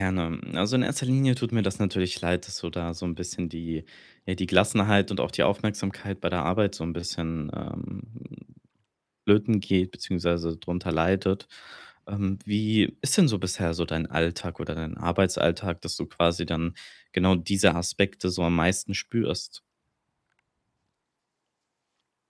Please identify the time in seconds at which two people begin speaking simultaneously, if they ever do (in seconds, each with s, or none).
none